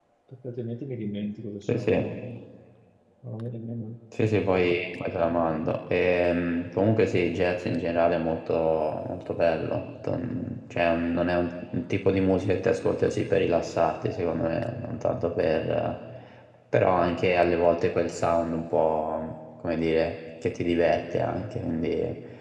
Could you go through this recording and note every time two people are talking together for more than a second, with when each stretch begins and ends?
none

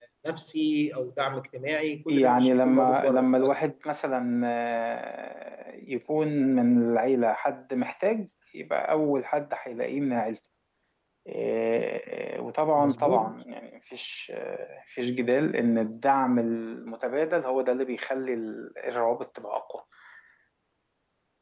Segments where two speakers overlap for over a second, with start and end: 2.1-3.6

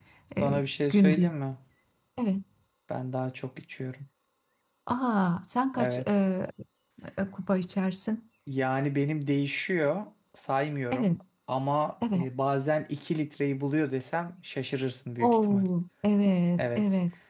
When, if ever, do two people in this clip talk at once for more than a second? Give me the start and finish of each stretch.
none

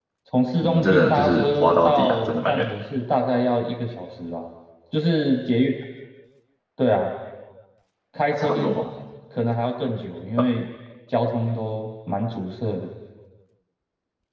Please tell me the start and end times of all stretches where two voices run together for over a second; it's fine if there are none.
0.6-2.7

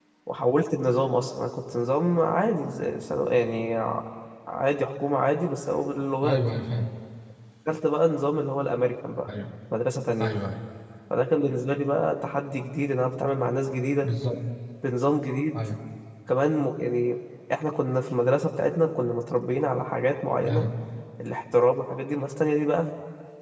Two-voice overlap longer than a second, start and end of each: none

